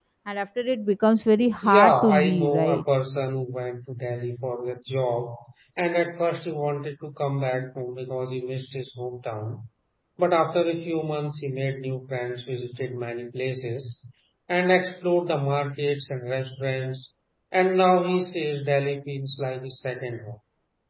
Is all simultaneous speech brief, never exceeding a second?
No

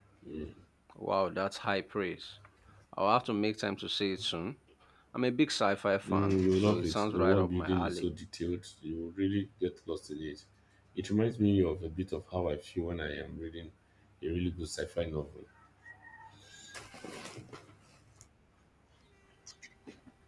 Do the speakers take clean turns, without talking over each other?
No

